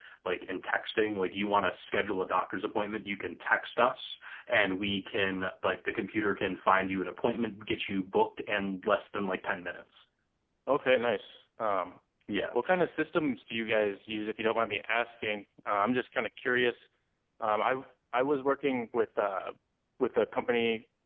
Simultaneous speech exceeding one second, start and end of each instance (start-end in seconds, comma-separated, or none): none